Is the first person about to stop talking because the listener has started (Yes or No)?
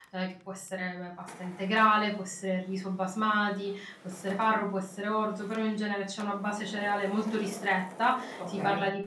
No